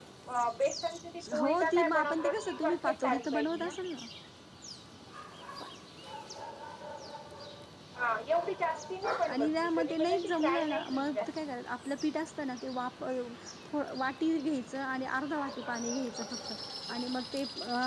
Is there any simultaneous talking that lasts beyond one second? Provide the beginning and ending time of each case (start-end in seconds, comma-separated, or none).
1.4-3.7, 9.3-11.3